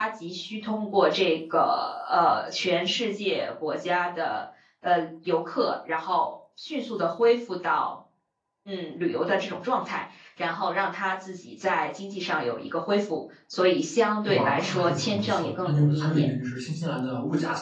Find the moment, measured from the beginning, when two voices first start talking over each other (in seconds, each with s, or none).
14.3 s